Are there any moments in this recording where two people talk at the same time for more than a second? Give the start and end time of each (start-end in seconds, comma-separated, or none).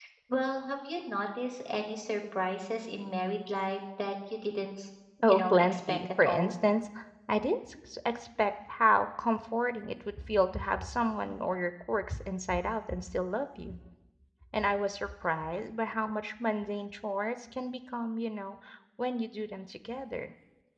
5.3-6.5